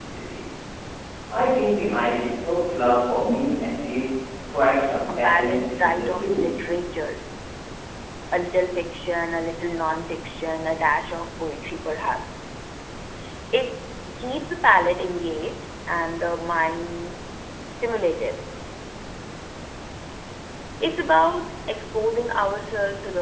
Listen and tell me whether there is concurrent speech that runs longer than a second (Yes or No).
Yes